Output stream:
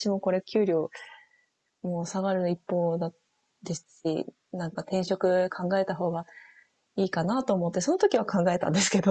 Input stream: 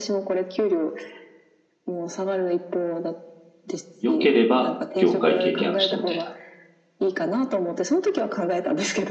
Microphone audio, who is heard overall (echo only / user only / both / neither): both